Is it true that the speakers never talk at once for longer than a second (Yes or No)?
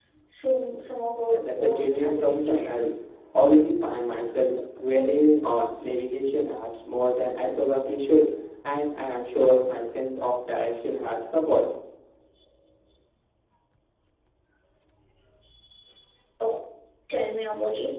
No